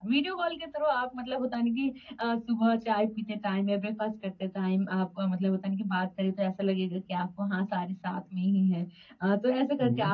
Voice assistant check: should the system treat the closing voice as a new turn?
No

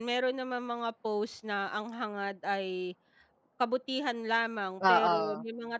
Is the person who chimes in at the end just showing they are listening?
Yes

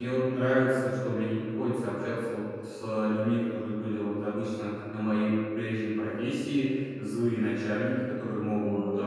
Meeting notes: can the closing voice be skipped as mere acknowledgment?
Yes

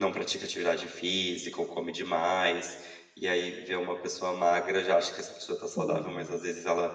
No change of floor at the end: Yes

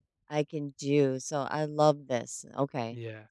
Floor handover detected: Yes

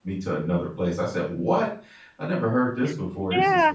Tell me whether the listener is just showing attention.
No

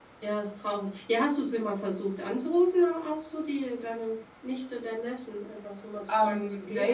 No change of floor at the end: No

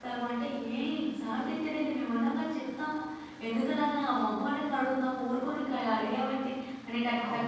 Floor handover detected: No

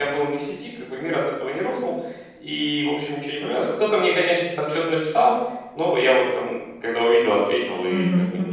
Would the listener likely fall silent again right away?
No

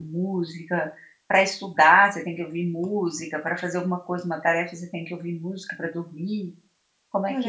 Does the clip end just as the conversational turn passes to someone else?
Yes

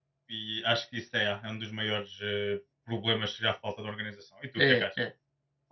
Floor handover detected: Yes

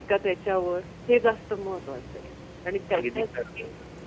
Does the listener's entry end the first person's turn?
No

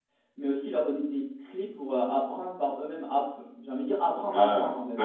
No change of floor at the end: No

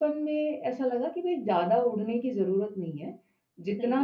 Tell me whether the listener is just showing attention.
Yes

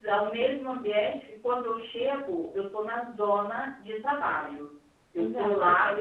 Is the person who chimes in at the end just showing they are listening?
No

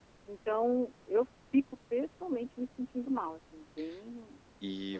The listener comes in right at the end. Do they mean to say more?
Yes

